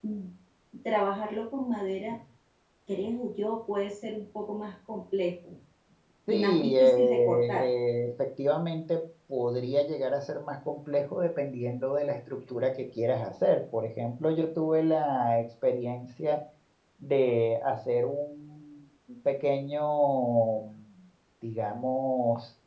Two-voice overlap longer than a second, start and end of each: 6.3-7.7

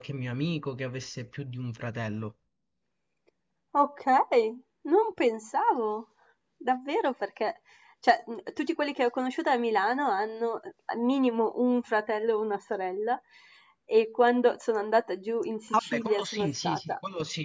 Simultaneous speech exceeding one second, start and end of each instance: 15.7-16.9

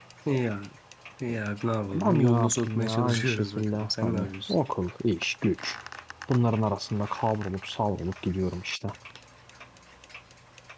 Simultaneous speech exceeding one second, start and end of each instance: 1.9-4.5

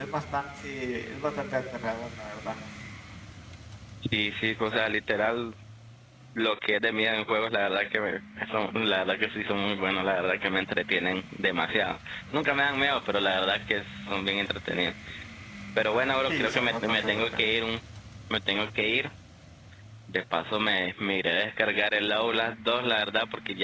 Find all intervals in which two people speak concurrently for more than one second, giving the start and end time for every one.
16.3-17.5

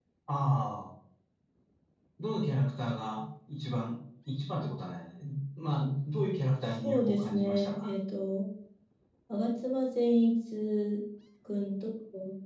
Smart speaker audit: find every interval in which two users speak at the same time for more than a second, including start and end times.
6.7-7.9

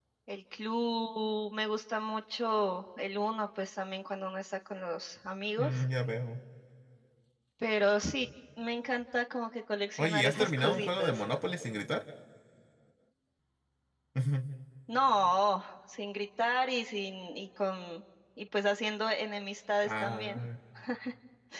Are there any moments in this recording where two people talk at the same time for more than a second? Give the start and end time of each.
10.0-11.2

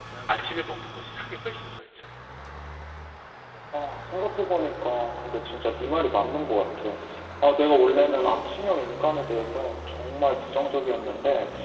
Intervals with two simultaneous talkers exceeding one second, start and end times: none

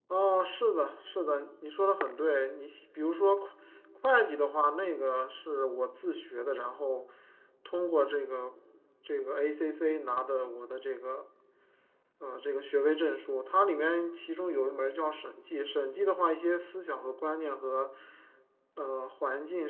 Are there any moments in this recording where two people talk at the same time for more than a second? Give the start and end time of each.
none

